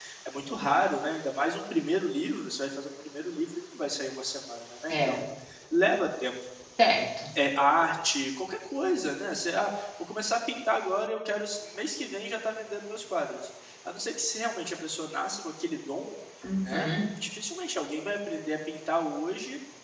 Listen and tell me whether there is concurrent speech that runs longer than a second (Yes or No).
No